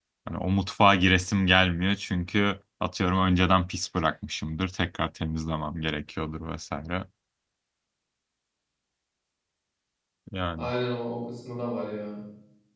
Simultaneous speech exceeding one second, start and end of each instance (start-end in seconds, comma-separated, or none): none